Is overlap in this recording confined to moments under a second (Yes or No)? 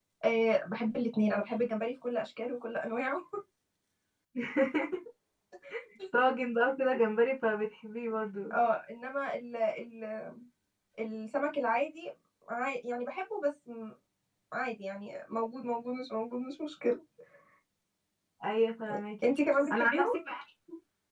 Yes